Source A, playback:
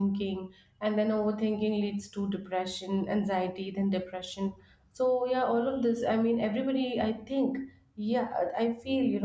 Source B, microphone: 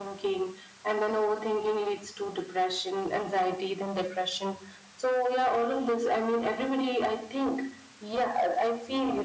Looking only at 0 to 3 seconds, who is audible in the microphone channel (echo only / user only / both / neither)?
echo only